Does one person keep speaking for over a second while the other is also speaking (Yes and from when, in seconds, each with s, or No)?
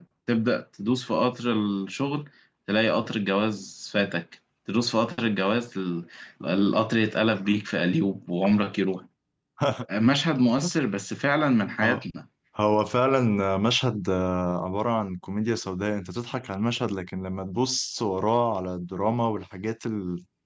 No